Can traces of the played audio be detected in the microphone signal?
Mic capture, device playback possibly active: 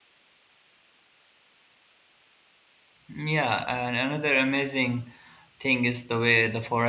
No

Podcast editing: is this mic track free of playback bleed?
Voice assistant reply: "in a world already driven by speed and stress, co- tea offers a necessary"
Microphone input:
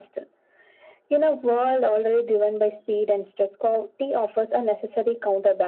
No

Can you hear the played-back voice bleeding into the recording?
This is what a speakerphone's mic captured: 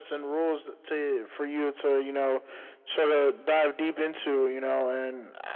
Yes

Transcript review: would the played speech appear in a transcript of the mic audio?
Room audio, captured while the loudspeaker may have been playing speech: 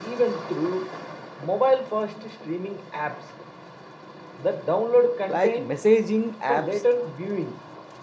Yes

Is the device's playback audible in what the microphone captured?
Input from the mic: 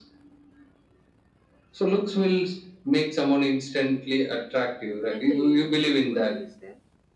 Yes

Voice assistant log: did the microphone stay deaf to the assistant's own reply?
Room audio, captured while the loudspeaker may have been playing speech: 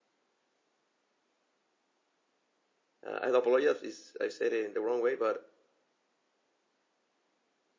Yes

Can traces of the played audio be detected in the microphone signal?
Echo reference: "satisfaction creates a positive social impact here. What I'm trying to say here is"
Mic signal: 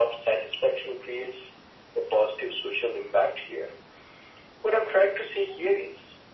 Yes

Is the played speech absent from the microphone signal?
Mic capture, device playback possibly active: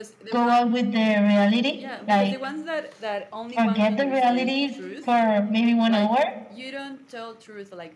No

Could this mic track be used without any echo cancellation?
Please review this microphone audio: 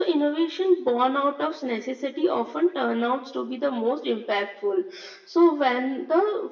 No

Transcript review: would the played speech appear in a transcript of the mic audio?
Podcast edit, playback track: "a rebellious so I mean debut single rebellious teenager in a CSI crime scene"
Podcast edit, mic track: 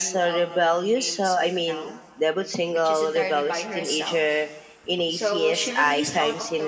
Yes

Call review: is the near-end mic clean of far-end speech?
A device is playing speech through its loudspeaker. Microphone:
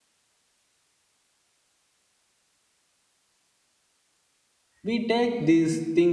Yes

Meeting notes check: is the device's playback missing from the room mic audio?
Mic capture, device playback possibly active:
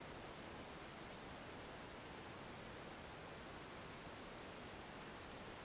Yes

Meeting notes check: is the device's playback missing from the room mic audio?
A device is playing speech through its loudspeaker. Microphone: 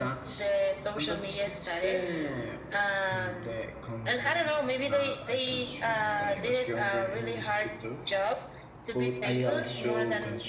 No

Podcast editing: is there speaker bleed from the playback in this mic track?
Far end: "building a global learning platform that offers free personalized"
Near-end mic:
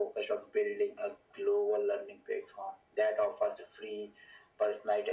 Yes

